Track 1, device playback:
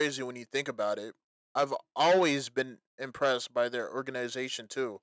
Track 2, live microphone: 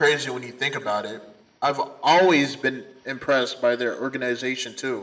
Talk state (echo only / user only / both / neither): echo only